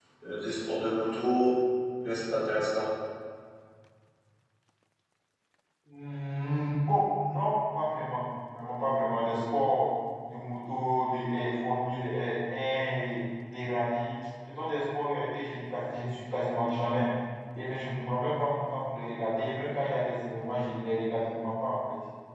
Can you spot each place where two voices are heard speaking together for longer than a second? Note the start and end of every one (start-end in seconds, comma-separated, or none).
none